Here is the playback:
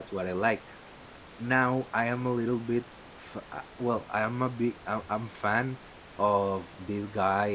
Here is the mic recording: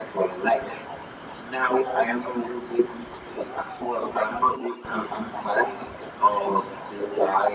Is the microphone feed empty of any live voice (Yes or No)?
Yes